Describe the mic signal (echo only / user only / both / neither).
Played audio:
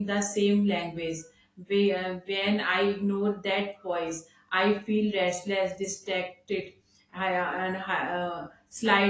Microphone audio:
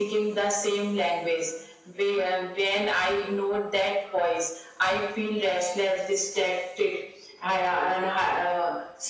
echo only